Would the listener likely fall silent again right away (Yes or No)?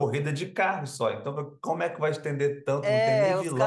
No